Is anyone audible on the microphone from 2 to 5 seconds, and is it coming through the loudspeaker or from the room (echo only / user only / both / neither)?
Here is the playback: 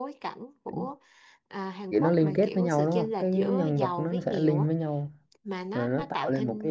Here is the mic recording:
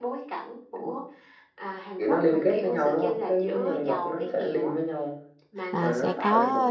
echo only